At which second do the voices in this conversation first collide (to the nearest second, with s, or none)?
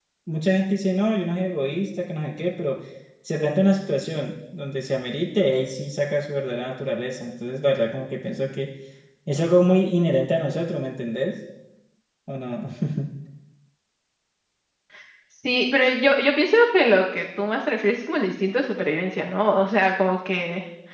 none